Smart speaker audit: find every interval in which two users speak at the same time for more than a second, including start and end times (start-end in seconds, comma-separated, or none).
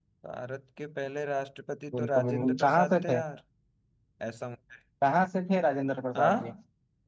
2.0-3.2